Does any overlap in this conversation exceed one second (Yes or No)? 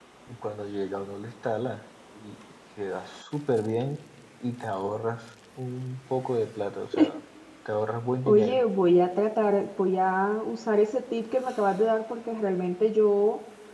No